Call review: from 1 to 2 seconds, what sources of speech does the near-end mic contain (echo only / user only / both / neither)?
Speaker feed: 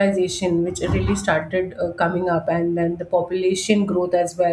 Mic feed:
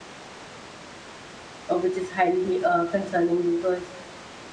user only